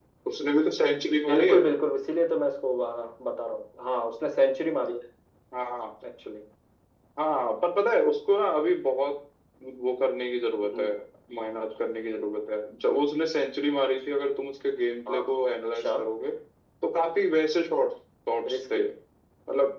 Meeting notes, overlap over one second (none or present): none